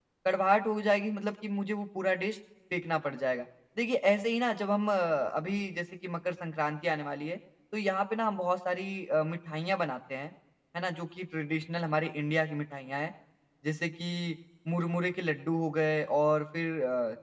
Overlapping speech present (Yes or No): No